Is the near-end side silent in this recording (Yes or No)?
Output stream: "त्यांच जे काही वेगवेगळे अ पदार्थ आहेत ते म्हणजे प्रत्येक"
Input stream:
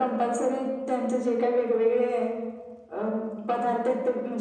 Yes